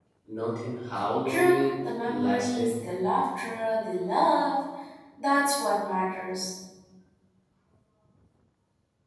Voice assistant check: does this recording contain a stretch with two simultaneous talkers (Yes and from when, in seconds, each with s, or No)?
Yes, from 1.2 s